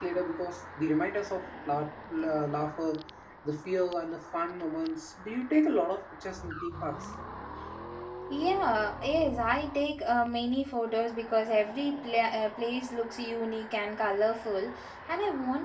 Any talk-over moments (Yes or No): No